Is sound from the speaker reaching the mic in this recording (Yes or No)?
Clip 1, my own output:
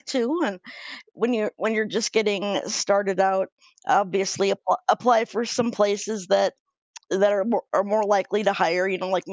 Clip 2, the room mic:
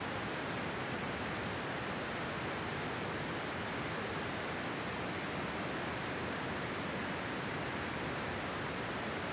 No